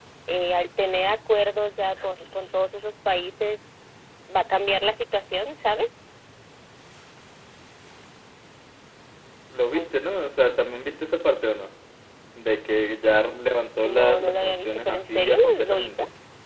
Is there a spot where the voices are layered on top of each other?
Yes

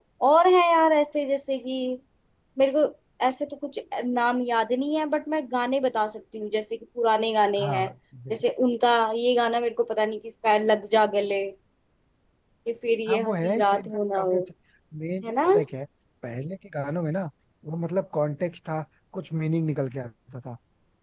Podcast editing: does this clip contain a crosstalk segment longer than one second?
Yes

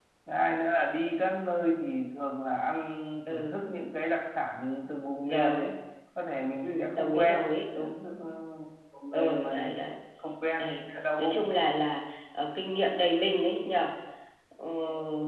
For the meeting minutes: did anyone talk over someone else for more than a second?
Yes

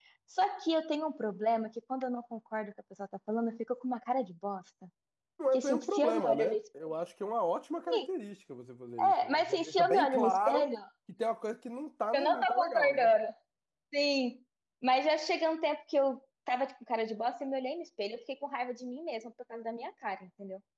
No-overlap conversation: No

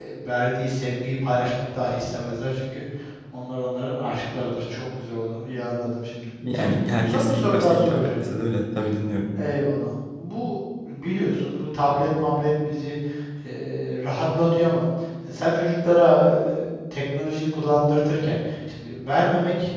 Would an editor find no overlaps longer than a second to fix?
No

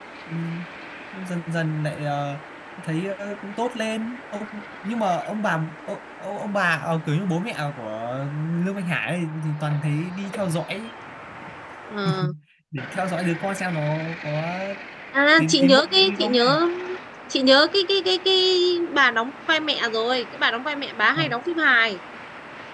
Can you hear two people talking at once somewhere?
Yes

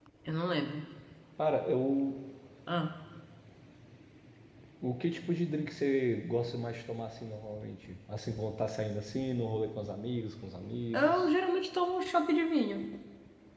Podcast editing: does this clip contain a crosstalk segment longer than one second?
No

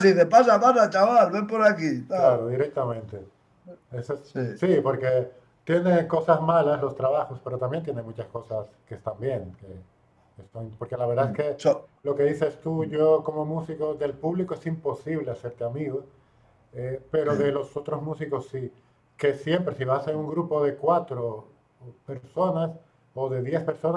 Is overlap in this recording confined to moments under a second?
Yes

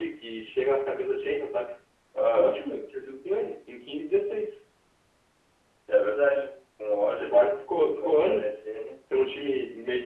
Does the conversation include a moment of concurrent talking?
Yes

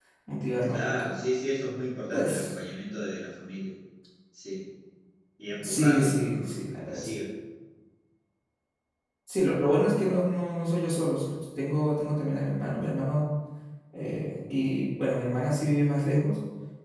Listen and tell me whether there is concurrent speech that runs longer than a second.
Yes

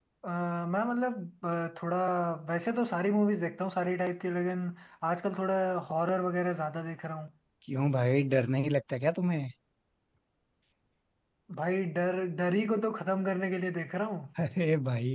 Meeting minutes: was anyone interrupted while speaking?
No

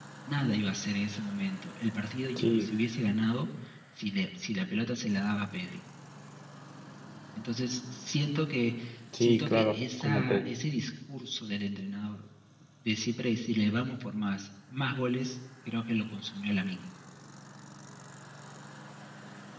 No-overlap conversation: No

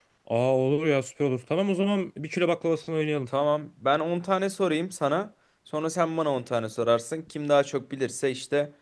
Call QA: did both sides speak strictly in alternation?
Yes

